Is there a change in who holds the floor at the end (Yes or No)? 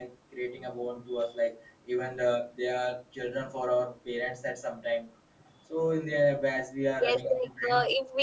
Yes